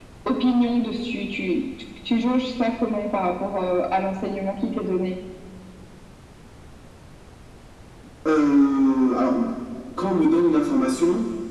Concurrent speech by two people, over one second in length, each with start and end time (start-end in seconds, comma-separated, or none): none